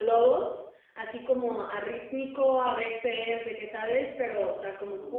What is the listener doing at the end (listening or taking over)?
listening